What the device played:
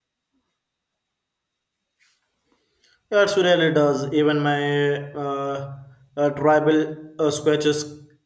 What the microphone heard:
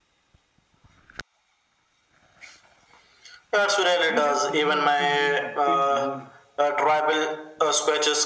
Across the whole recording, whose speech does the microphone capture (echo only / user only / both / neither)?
both